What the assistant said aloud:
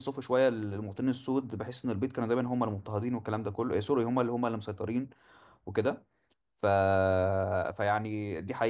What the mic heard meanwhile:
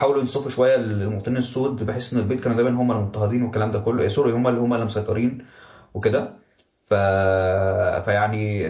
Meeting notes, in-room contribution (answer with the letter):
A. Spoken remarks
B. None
B